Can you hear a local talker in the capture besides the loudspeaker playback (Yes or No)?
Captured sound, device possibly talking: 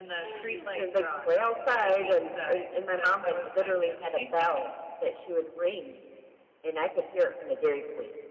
No